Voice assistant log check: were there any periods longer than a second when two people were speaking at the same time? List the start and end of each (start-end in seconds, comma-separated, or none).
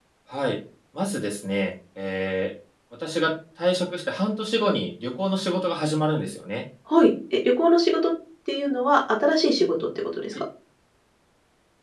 none